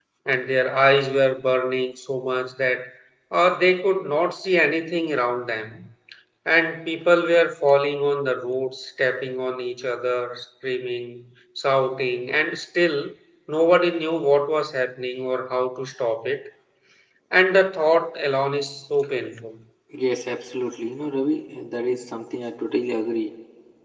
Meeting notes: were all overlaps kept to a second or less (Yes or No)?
Yes